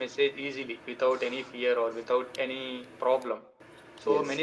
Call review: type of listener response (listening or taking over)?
listening